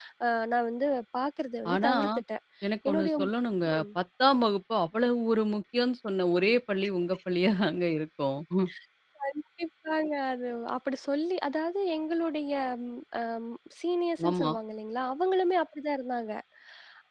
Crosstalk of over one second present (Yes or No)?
No